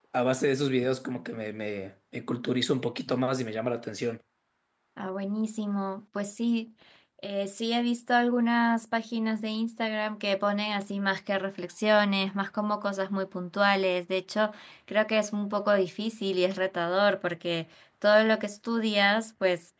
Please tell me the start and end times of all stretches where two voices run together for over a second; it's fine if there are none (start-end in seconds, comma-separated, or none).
none